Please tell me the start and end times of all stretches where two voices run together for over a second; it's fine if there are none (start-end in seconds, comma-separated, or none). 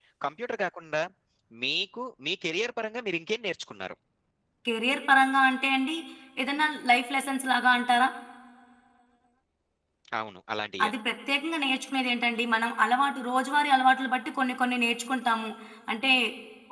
none